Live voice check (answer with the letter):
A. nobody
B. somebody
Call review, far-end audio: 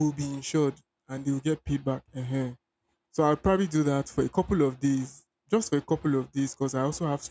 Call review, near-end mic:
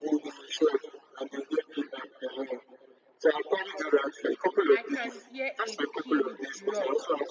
B